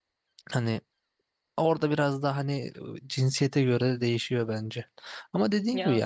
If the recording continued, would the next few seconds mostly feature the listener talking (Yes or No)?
No